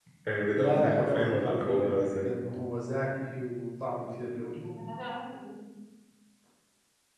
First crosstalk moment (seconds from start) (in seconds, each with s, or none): 0.5 s